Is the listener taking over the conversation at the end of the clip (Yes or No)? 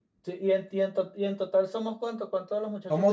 Yes